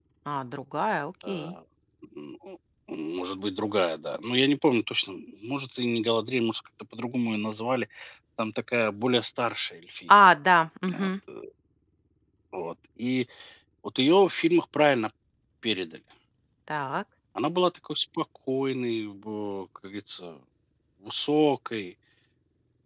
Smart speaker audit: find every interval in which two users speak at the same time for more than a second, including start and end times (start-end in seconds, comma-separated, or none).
none